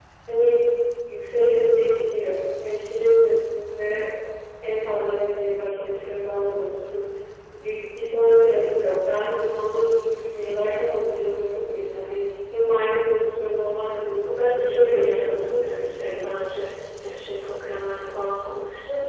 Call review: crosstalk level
present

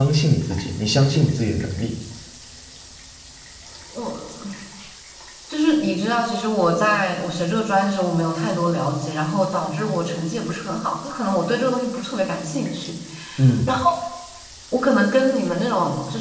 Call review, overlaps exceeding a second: none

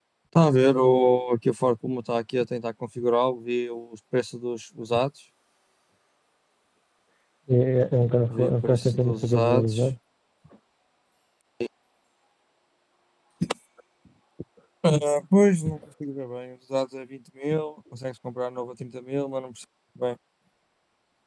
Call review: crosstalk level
present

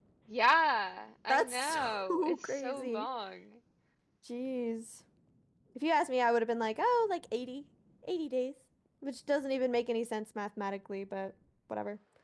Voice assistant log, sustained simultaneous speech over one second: present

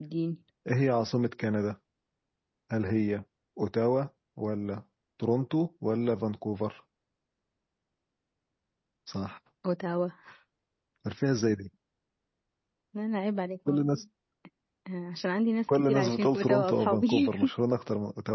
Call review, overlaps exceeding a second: present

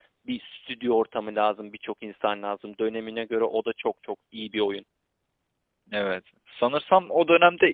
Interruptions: none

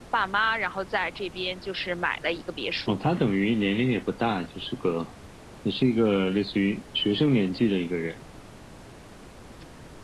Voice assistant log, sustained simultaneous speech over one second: none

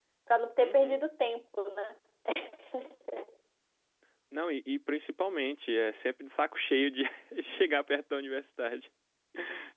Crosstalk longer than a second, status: none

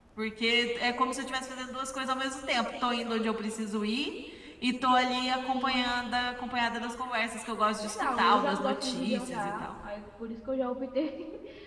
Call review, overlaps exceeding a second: present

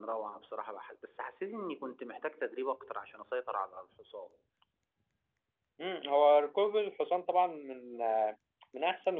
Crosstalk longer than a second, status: none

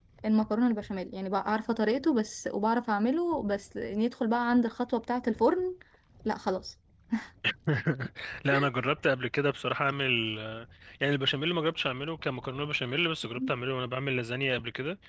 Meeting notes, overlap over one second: none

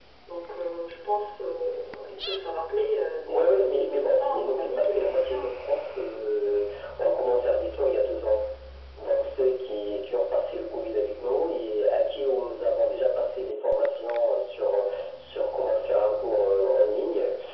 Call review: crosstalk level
present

